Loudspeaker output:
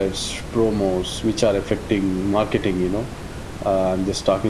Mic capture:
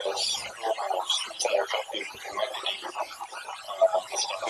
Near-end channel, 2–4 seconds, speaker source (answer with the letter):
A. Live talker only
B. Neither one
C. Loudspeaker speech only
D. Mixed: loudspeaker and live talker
C